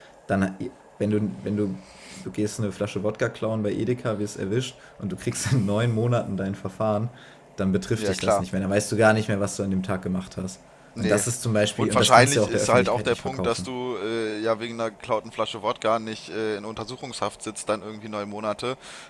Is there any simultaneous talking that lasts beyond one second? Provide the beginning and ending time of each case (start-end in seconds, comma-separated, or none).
11.8-13.7